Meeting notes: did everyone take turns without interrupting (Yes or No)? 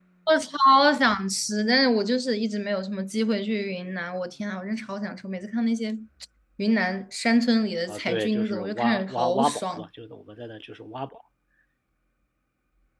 No